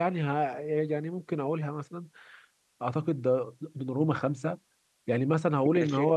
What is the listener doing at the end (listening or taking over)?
listening